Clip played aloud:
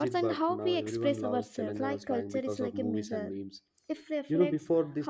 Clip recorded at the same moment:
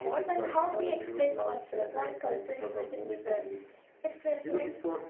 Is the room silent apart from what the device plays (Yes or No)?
Yes